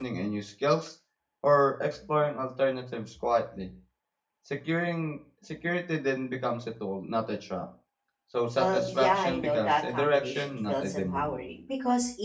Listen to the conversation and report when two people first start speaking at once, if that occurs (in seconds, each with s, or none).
8.6 s